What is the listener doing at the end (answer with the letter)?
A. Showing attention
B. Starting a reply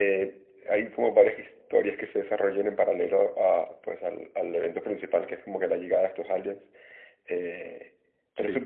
A